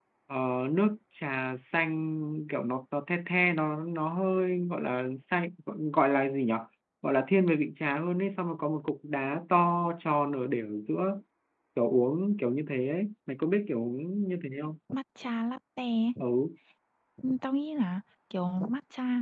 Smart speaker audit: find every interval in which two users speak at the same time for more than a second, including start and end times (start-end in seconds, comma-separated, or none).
none